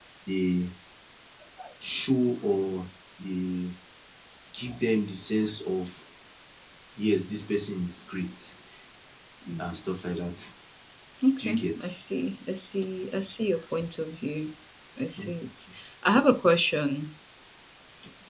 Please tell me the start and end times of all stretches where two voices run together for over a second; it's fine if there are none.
none

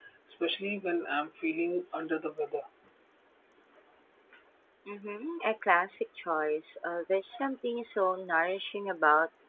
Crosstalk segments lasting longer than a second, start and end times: none

